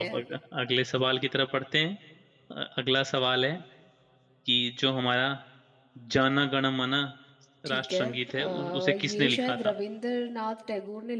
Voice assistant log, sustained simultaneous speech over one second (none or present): present